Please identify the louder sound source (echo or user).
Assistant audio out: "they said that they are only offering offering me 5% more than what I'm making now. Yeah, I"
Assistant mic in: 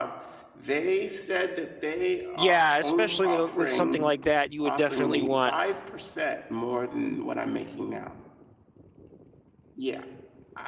user